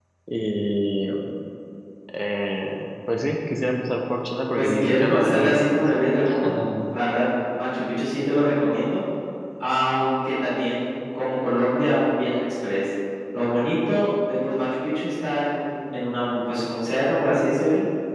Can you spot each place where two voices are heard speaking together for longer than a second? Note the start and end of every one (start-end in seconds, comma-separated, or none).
4.5-5.9